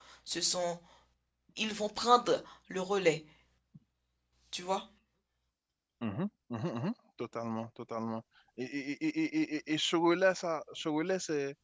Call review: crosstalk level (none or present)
none